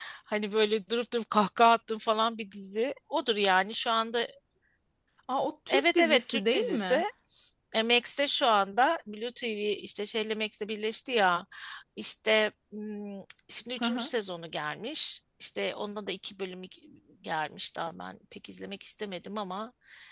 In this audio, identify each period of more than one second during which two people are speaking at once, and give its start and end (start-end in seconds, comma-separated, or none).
5.7-7.0